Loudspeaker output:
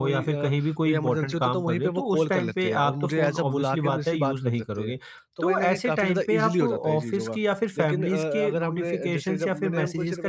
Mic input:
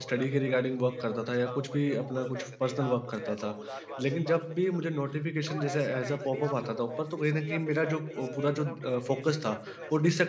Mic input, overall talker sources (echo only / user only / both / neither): both